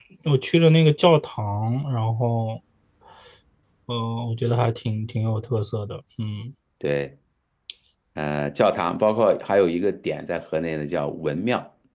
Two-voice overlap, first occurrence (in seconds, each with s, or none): none